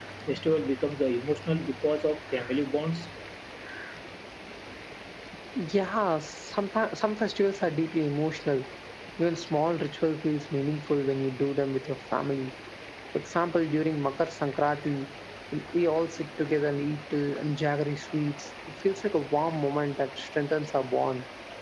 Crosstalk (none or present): none